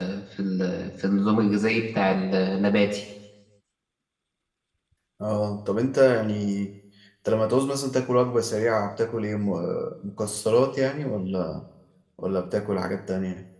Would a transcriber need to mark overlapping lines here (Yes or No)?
No